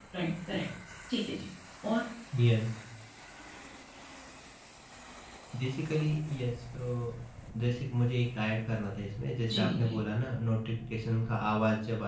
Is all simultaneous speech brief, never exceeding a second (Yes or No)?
Yes